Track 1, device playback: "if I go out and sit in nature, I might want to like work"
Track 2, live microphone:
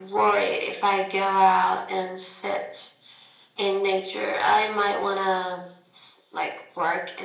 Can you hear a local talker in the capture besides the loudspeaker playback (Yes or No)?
No